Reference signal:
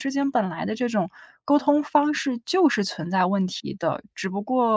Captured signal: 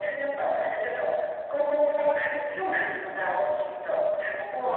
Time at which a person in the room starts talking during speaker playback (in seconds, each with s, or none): none